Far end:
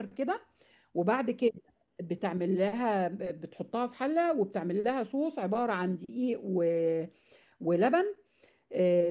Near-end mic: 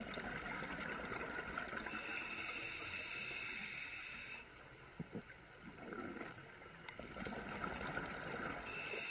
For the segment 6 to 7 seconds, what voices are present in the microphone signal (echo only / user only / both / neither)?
neither